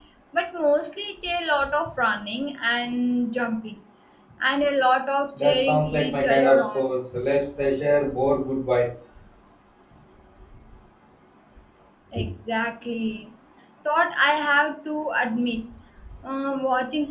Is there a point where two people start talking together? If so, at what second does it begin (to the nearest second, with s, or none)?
5 s